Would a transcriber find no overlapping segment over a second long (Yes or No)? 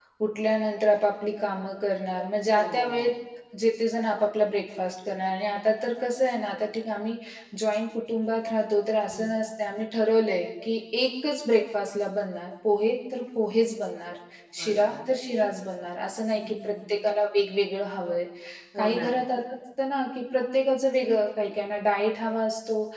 Yes